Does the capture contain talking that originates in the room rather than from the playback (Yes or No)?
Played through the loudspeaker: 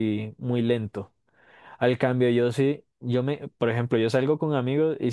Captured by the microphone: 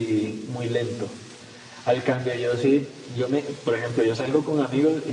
No